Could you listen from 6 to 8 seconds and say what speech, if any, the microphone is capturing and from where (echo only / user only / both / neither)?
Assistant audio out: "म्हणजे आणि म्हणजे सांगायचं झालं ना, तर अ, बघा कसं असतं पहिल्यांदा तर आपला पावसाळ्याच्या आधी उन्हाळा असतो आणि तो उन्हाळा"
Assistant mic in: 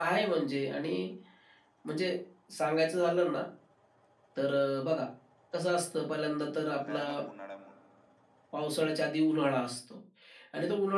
both